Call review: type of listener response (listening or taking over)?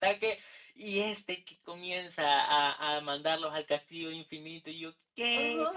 taking over